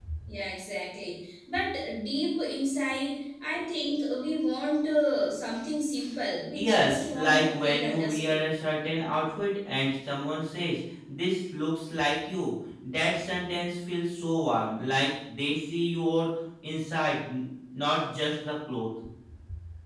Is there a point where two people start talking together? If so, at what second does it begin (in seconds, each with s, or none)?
6.5 s